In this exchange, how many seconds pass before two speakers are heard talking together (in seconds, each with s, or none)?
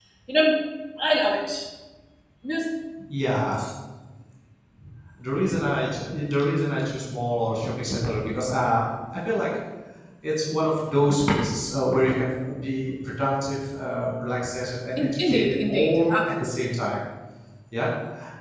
15.0 s